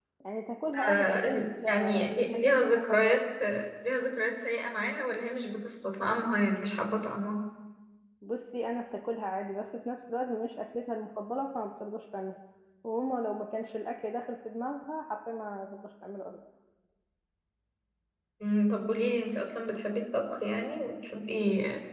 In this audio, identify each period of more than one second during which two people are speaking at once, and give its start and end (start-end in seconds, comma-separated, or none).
0.9-3.2